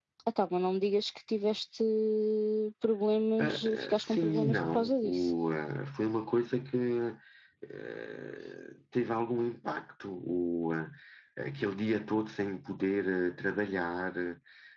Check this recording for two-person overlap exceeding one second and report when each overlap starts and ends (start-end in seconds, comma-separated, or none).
3.4-5.3